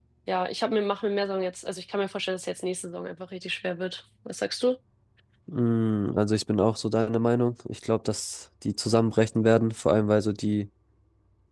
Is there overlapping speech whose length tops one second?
No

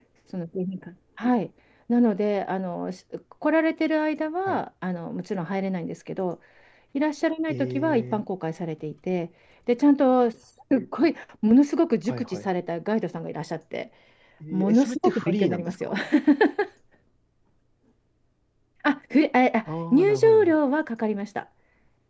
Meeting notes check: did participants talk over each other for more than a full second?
Yes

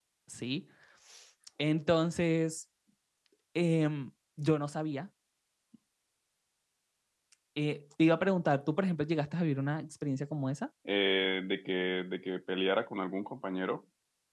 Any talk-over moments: No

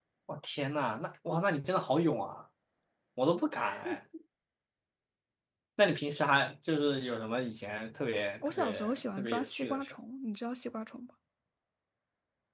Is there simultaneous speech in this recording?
Yes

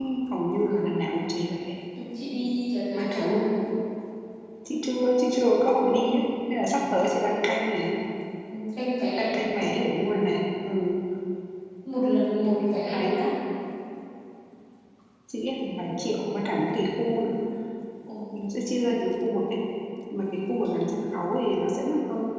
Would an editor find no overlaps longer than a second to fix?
Yes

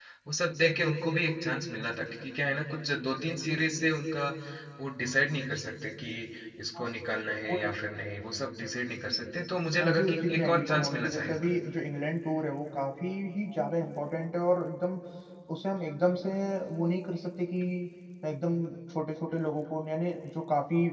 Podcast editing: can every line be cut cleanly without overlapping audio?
No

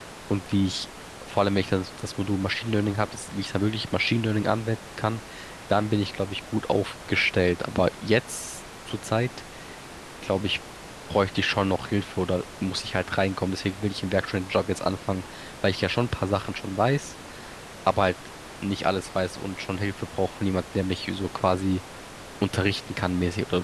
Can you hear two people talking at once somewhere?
No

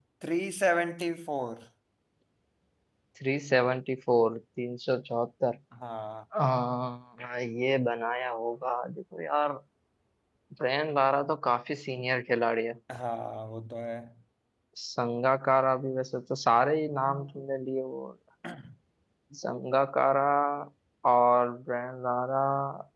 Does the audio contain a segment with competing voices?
No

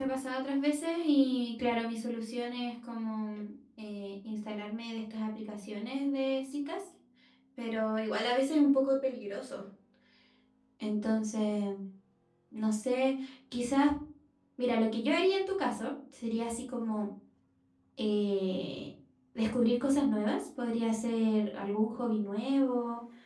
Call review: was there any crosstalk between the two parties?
No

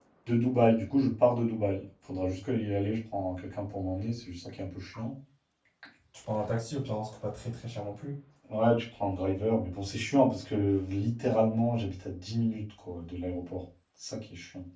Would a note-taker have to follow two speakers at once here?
No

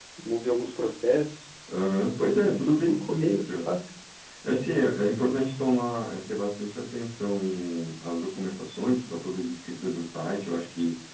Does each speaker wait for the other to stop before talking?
No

